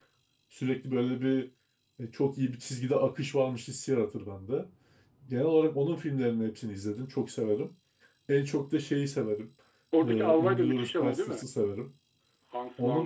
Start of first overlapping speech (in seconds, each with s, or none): 10.0 s